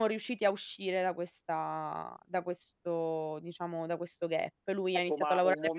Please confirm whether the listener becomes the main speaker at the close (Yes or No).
Yes